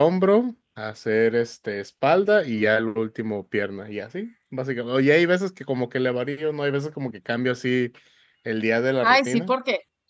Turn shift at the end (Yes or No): Yes